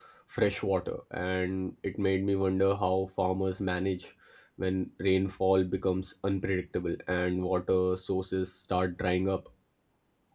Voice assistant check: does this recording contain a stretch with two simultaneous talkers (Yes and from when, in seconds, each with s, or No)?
No